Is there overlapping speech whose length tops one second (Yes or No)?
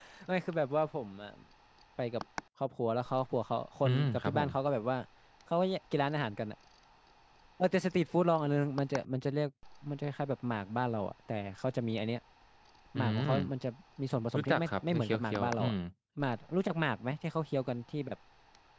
Yes